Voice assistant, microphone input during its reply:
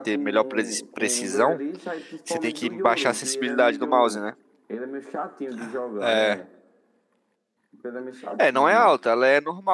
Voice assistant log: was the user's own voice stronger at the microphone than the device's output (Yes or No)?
Yes